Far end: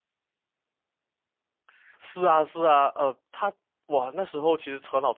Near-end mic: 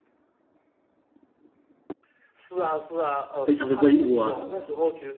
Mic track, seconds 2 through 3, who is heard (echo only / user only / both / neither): echo only